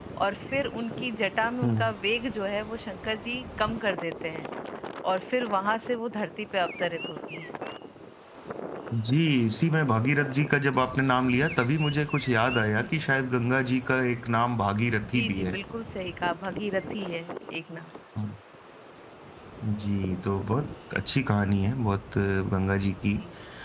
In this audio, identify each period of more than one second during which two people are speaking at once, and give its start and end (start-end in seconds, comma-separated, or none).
none